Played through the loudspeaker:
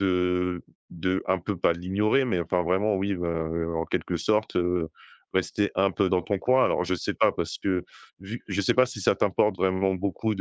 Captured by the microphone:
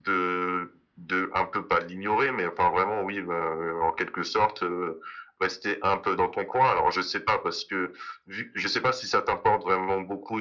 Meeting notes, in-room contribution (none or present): none